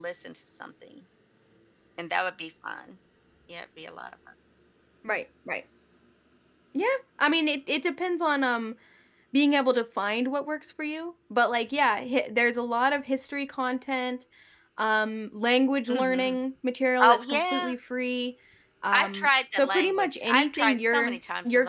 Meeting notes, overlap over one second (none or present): present